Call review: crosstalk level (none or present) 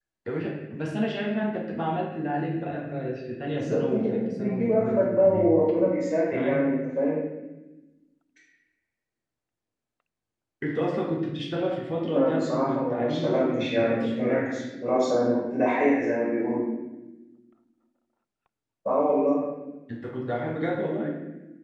present